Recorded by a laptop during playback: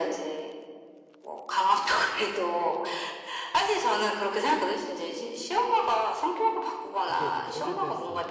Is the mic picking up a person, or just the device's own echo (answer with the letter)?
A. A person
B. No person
A